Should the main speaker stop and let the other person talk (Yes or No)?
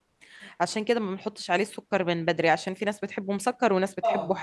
Yes